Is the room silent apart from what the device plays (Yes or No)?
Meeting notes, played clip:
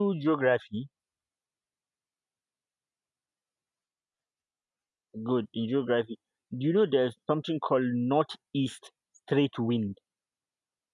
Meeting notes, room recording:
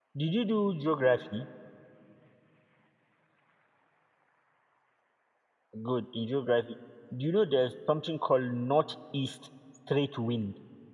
Yes